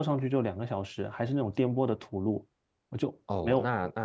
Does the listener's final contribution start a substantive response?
Yes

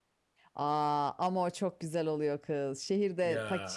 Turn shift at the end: No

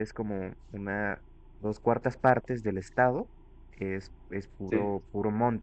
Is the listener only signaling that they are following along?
Yes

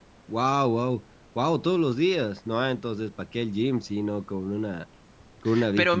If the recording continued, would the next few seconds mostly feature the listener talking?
Yes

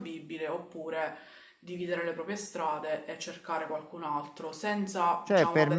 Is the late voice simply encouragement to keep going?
No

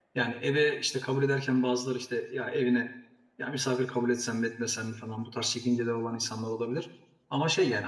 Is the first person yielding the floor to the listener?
No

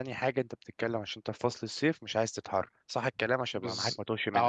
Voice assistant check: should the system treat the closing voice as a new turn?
Yes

